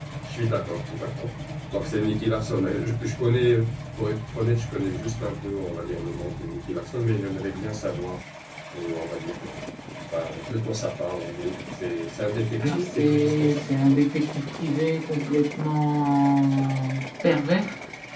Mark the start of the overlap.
12.6 s

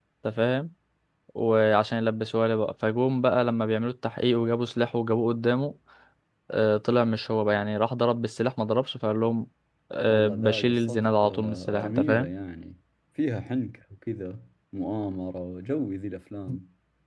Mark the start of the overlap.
10.1 s

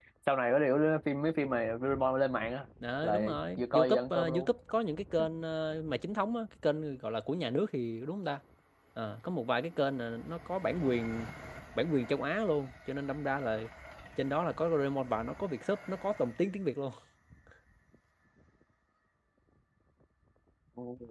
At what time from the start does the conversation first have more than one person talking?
2.8 s

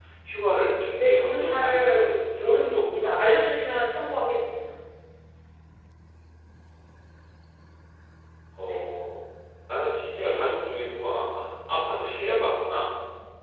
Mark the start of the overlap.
1.0 s

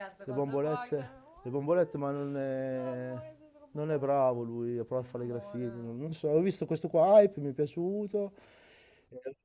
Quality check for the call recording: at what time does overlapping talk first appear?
none

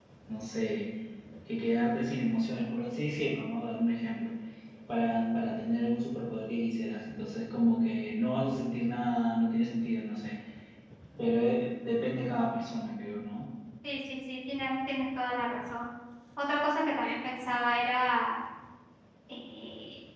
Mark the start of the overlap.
none

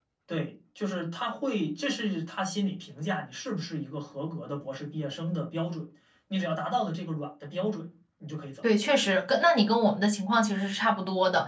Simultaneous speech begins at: none

